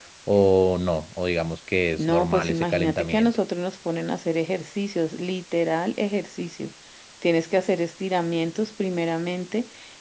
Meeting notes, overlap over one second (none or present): present